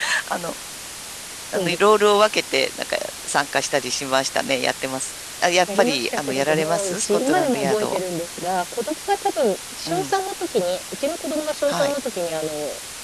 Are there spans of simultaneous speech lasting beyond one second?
Yes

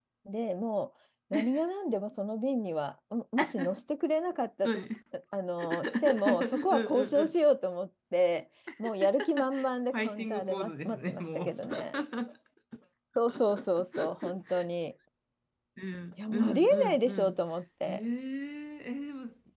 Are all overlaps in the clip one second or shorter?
No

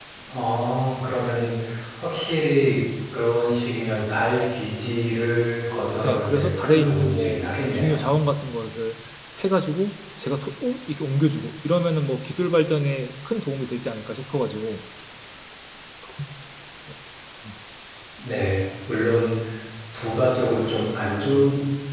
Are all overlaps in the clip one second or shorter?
No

